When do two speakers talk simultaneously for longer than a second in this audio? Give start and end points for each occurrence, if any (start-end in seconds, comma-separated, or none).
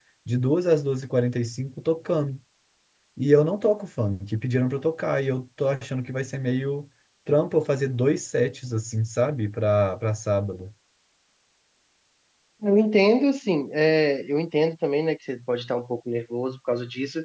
none